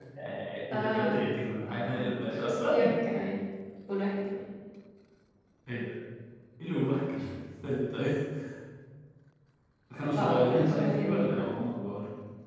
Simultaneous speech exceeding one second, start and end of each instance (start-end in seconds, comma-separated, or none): 1.7-3.0, 10.2-11.5